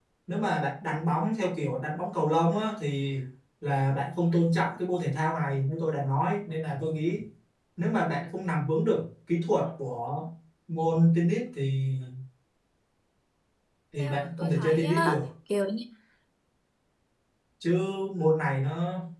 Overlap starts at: 14.0 s

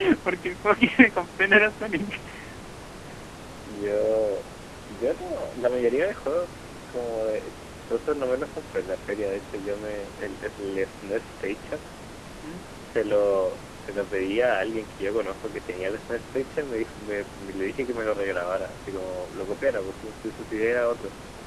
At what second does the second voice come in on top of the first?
none

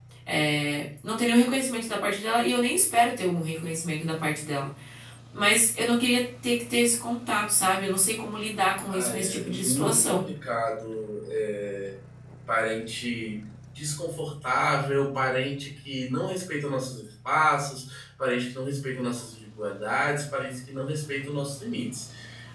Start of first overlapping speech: 8.9 s

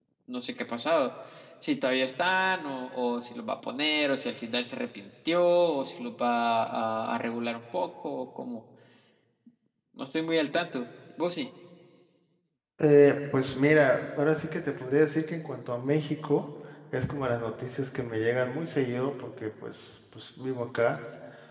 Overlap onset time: none

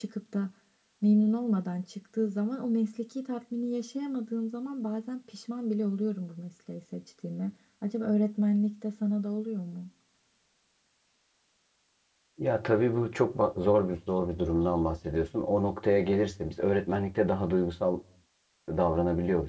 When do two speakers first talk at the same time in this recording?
none

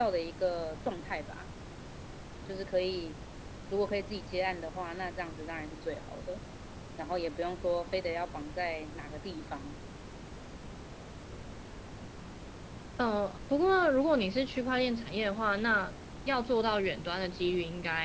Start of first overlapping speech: none

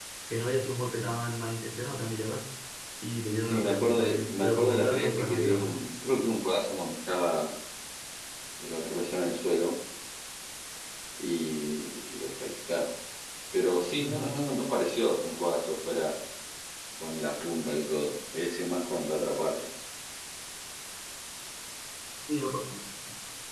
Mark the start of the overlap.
3.5 s

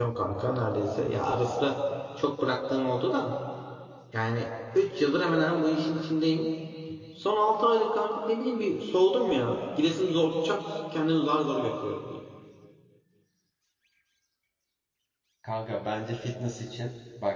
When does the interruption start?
none

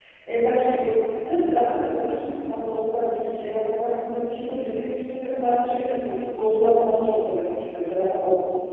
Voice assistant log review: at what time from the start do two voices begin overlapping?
none

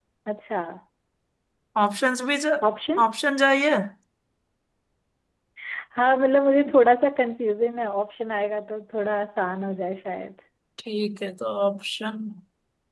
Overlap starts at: none

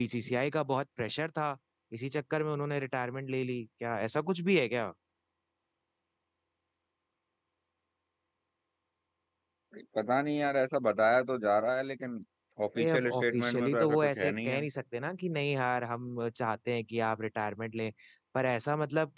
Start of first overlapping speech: 12.8 s

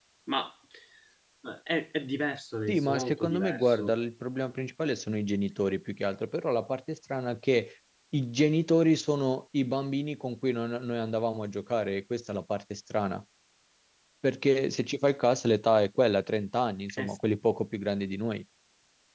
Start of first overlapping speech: 2.7 s

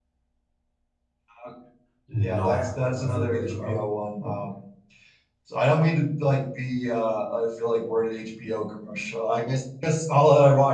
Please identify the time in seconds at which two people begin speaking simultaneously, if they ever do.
2.2 s

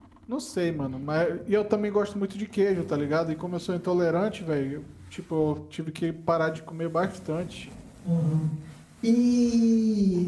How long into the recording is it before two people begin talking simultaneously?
none

